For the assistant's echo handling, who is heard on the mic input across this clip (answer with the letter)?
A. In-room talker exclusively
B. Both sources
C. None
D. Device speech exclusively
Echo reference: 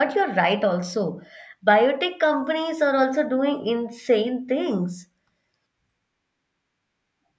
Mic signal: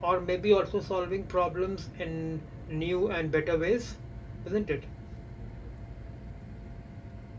A